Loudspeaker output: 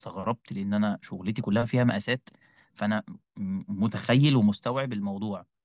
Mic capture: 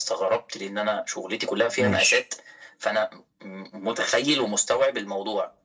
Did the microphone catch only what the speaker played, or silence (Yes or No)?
No